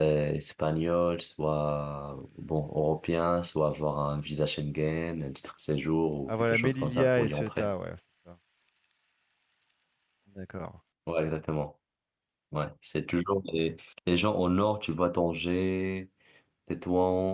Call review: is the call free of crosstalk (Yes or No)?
No